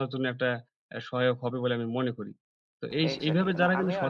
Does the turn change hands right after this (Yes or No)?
Yes